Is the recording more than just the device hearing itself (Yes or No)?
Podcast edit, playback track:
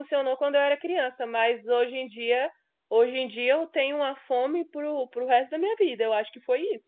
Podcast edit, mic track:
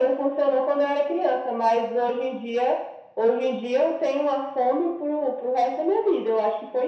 No